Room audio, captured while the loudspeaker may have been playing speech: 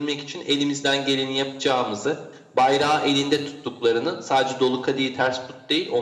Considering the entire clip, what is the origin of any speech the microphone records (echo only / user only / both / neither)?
echo only